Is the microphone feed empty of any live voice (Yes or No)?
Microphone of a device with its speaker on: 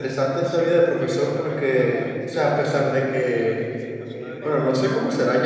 No